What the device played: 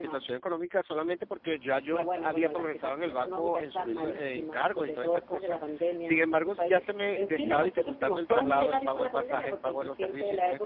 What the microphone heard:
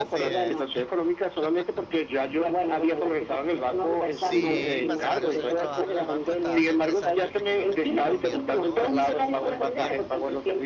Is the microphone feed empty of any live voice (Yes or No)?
No